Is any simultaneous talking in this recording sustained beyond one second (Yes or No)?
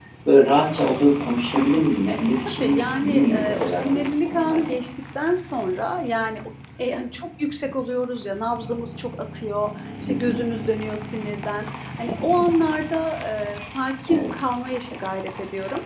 Yes